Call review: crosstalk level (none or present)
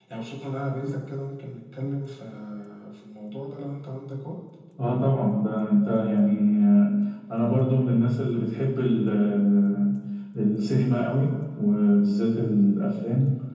none